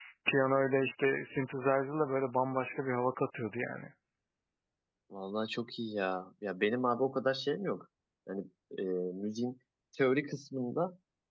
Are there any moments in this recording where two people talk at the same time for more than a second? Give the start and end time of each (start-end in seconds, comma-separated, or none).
none